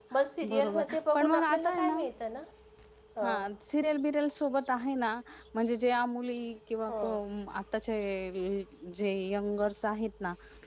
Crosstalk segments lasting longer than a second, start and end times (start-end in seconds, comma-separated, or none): 0.5-1.8